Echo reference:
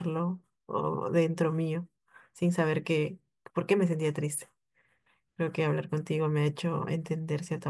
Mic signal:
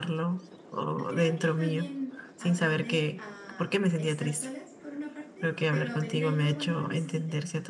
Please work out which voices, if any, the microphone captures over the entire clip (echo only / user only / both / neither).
both